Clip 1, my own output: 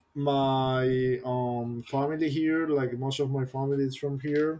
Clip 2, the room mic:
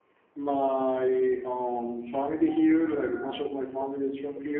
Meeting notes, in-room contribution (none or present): none